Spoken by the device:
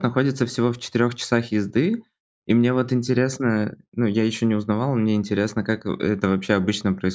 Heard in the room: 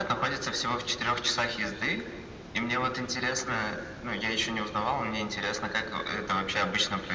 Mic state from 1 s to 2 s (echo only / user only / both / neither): echo only